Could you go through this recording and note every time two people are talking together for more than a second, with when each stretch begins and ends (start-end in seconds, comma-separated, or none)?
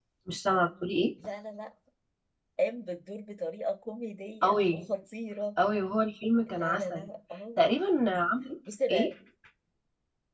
none